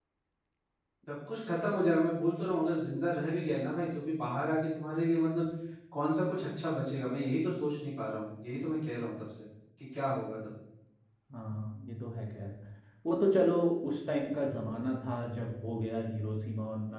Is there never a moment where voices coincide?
Yes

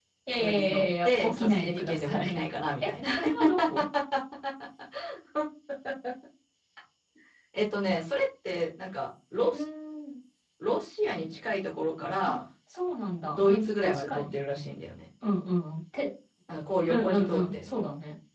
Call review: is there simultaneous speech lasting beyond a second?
Yes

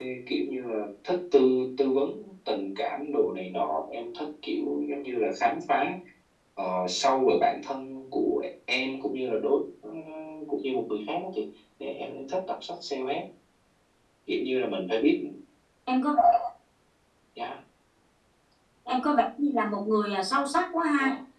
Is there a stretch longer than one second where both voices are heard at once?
No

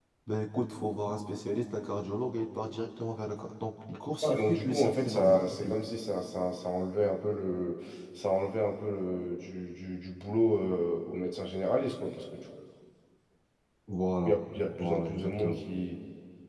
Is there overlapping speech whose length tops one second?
Yes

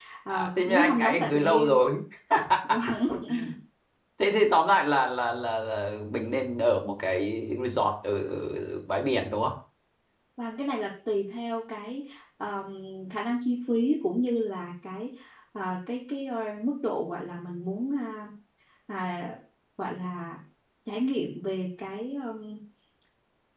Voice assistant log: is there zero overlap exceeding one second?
No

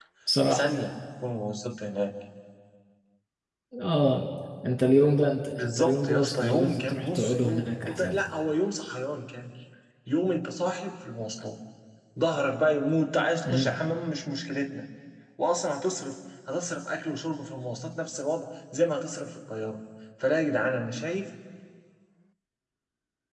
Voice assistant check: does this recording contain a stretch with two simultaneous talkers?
Yes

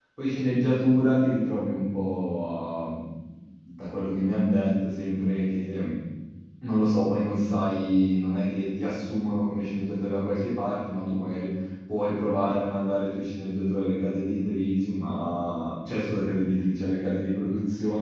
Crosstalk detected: No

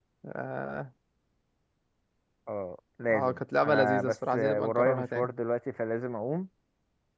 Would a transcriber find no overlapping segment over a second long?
No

